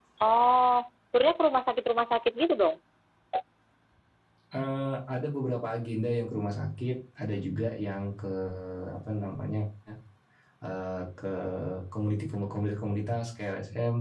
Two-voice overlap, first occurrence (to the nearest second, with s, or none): none